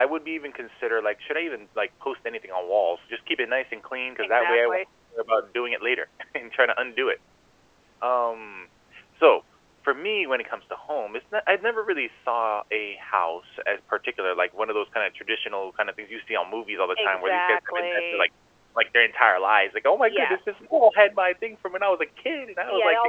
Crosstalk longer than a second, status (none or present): present